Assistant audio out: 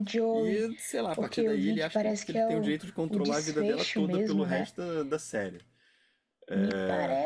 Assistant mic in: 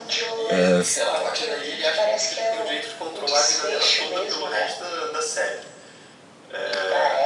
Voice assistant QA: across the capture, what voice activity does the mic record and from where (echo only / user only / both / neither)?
both